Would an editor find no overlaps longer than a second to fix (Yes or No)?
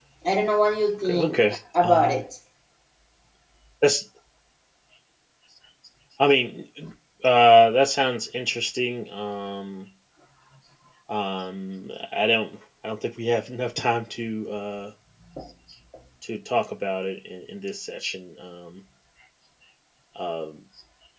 No